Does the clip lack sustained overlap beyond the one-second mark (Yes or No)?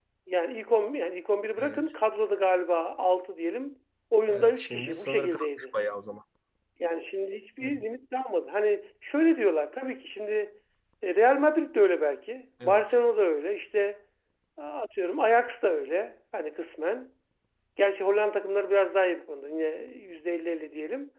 No